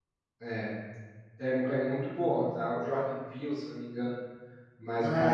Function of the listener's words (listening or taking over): taking over